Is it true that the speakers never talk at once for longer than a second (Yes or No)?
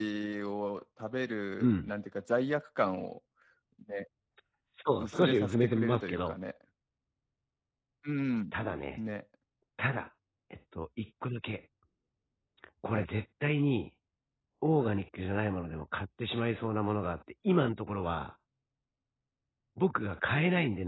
No